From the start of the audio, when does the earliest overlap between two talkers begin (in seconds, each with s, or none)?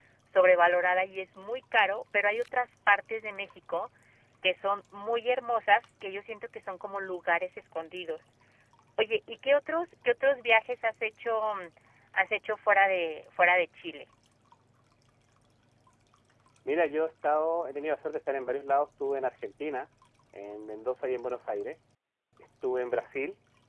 none